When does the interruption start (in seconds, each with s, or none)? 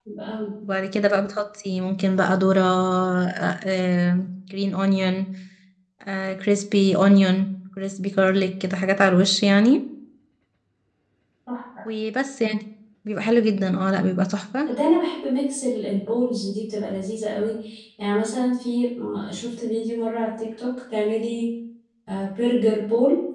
none